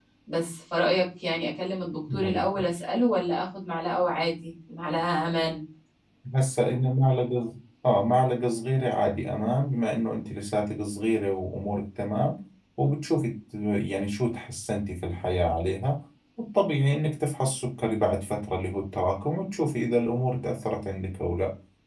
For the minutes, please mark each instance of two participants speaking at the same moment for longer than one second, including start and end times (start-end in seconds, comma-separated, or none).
none